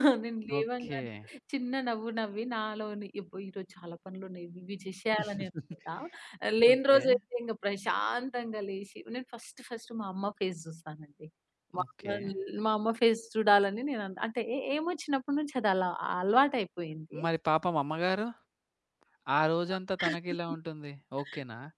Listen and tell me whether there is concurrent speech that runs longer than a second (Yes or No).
No